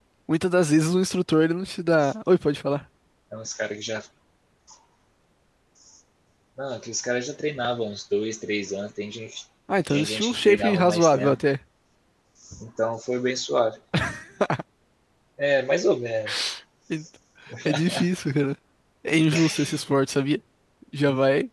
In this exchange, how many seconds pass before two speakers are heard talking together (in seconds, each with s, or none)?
9.9 s